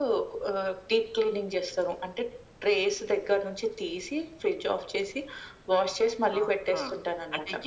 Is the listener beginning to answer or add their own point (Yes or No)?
Yes